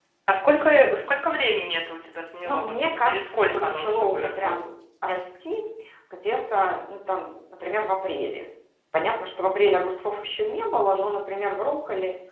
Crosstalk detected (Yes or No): Yes